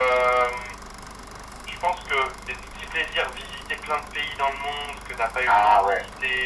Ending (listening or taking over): listening